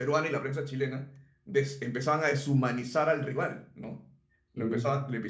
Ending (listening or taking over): listening